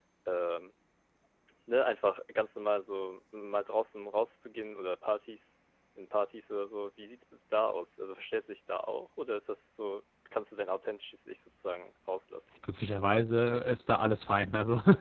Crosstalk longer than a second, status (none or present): none